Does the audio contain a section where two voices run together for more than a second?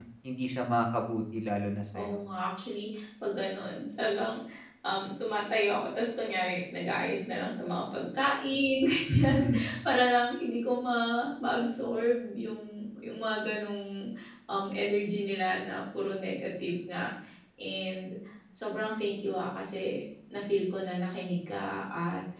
No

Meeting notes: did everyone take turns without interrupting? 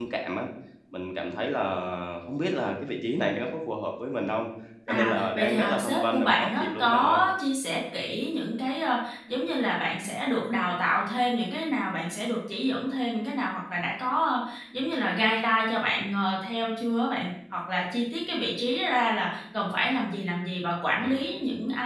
No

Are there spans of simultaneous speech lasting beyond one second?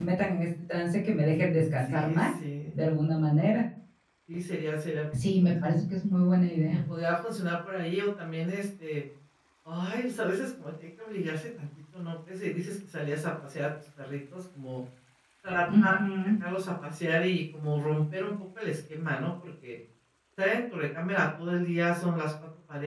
No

